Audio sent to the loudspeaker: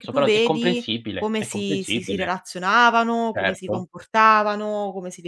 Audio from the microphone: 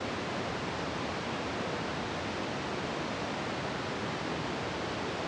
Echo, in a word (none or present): none